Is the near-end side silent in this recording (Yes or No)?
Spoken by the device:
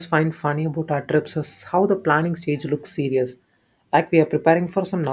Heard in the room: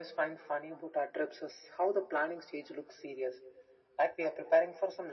Yes